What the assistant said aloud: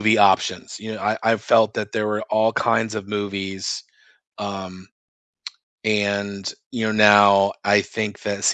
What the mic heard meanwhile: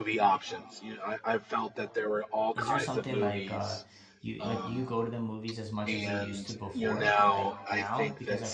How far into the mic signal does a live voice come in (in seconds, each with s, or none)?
2.5 s